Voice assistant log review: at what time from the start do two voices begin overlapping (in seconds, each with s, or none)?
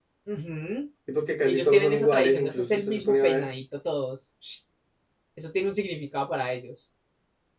1.4 s